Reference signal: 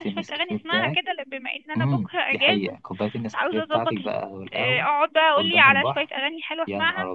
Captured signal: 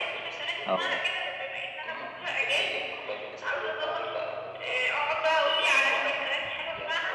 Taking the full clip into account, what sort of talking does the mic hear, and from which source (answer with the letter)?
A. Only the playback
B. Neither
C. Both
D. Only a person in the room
C